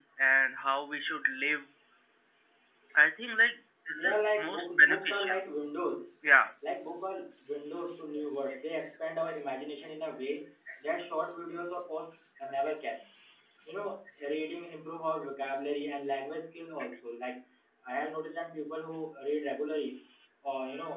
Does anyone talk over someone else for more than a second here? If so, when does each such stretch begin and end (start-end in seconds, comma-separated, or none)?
3.9-5.4